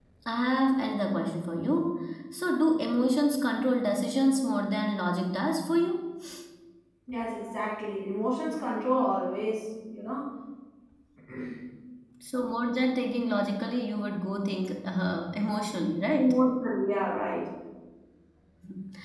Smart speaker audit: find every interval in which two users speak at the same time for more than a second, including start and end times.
none

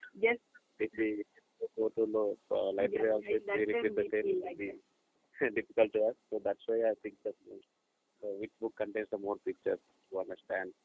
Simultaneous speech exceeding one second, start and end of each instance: 2.8-4.7

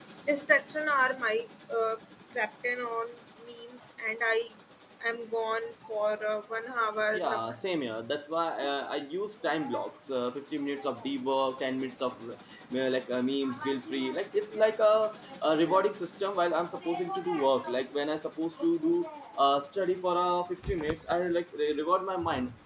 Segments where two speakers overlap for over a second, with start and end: none

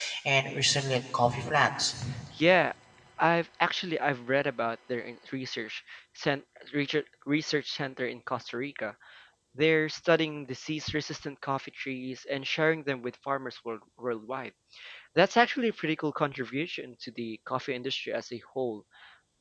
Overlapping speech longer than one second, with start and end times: none

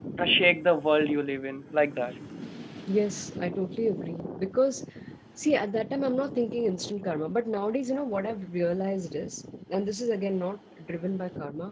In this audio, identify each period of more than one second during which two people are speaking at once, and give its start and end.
none

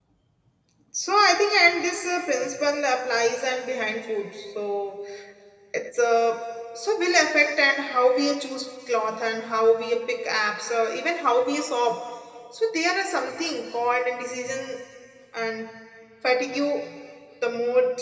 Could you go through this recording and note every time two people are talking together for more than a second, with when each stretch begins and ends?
none

